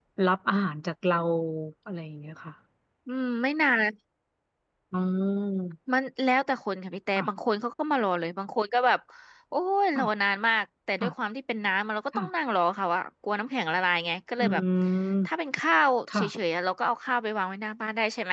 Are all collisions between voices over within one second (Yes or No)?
Yes